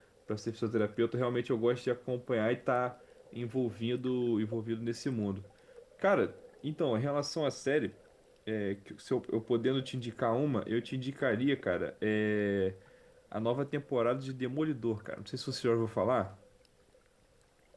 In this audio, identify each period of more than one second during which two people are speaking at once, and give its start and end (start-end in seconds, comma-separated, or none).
none